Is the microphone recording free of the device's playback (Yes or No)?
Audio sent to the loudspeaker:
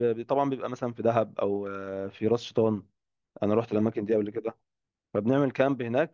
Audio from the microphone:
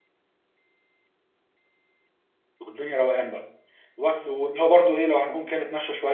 Yes